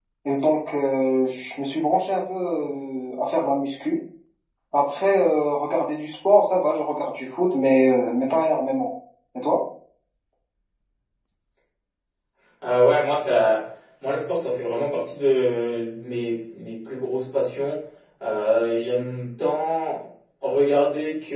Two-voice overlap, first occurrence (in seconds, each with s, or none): none